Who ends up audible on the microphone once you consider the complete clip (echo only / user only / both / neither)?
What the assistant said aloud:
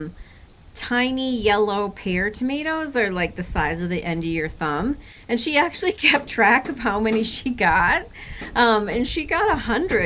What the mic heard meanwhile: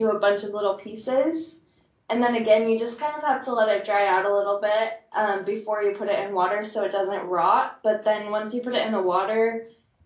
user only